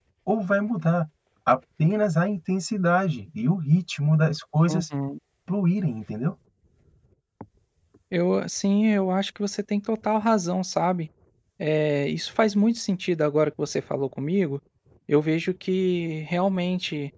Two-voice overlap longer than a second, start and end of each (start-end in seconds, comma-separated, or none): none